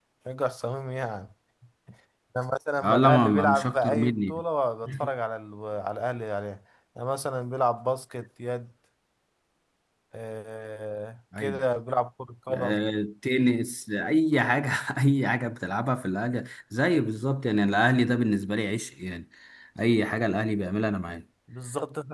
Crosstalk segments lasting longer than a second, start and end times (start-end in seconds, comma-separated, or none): 2.8-4.4